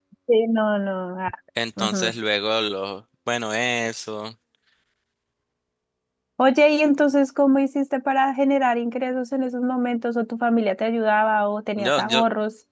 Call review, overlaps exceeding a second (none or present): none